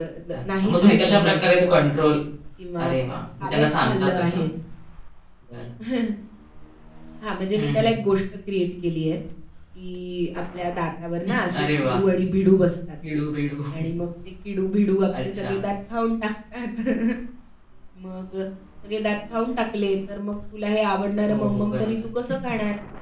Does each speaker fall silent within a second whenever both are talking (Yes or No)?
No